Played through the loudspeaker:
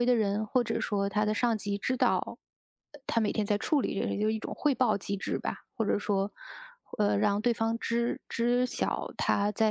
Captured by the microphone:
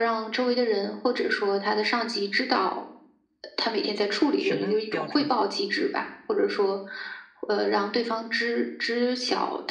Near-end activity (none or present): present